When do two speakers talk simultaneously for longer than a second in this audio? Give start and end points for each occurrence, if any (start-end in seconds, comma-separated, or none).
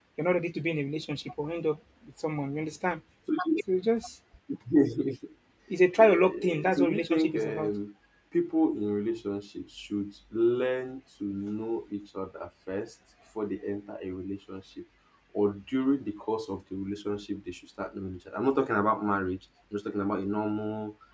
6.0-7.7